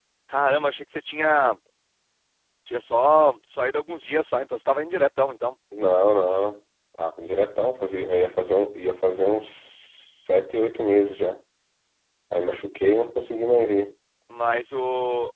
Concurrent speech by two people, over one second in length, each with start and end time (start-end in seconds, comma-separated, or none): none